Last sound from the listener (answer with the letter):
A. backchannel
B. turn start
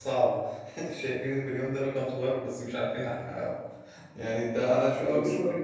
B